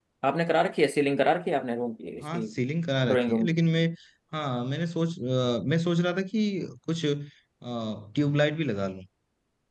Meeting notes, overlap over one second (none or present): none